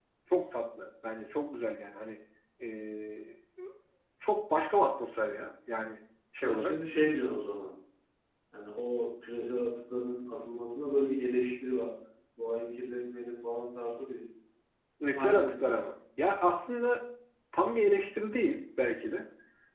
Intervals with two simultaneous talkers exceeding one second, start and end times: none

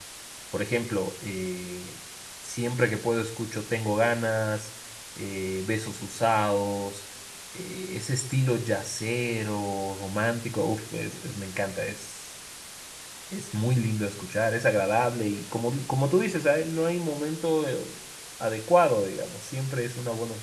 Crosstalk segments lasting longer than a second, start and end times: none

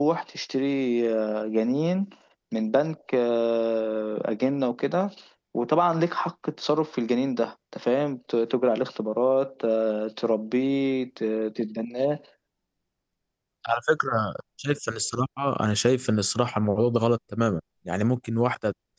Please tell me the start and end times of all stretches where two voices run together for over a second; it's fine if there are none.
none

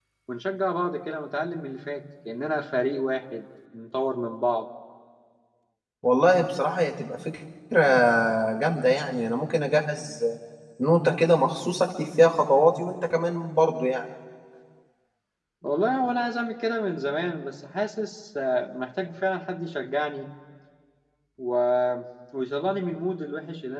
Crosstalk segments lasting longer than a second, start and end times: none

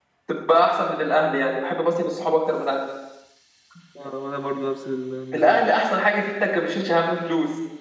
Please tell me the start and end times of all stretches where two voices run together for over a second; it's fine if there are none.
none

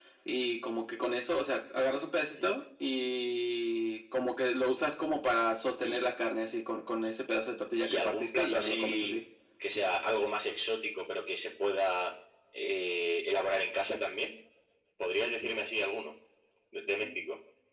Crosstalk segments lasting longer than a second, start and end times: 7.8-9.1

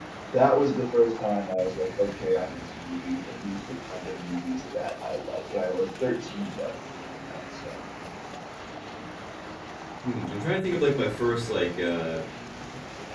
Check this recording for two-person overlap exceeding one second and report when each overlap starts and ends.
none

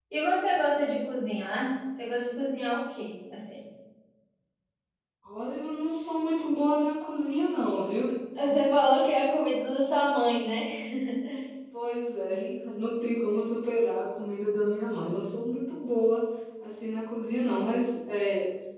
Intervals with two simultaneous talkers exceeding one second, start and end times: none

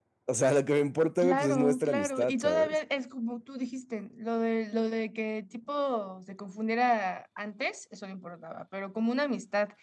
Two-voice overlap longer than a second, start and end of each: 1.2-2.8

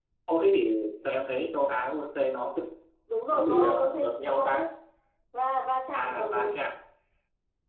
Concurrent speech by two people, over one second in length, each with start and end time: 3.3-4.6

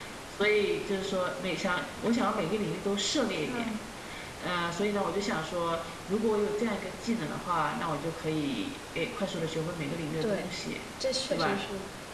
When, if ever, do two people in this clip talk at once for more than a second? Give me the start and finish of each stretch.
none

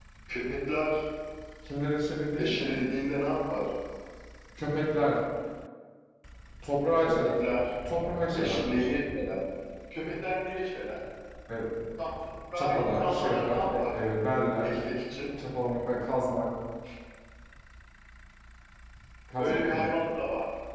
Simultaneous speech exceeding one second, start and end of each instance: 12.6-13.9

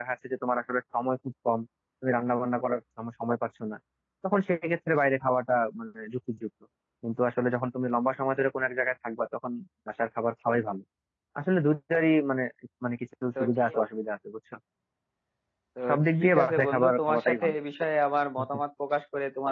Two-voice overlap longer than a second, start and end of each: 15.9-17.6

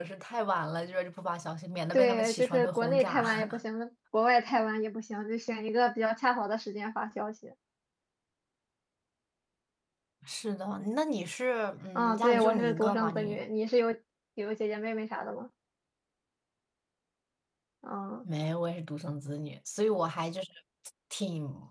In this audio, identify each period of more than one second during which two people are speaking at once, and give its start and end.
1.9-3.6, 12.0-13.4

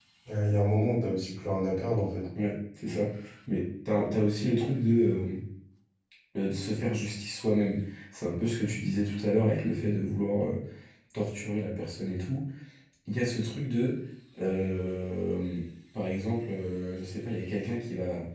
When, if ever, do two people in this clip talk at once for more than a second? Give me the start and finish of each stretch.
none

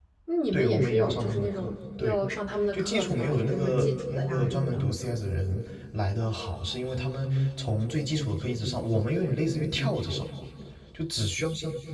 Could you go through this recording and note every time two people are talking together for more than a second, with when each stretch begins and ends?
0.5-2.2, 2.7-4.9

